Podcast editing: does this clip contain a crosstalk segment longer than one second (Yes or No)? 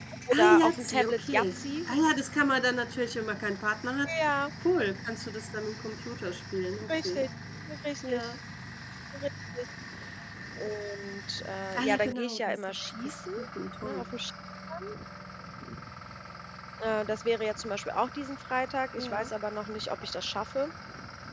Yes